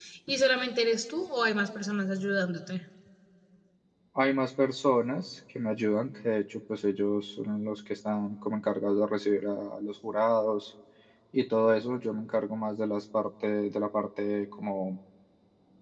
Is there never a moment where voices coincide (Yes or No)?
Yes